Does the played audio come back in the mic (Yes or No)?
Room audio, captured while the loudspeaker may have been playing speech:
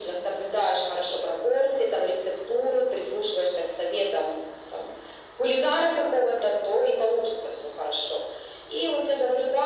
Yes